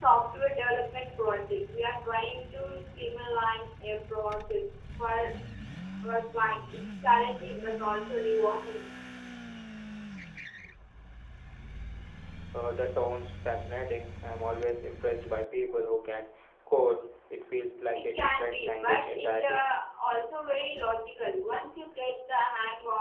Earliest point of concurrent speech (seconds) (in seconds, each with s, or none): 18.2 s